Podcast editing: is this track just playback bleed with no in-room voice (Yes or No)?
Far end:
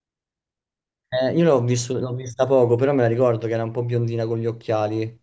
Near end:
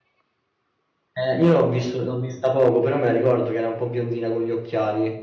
Yes